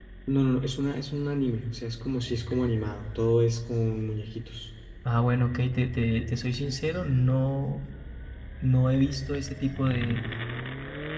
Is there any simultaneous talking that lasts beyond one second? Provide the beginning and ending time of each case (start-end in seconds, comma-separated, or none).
none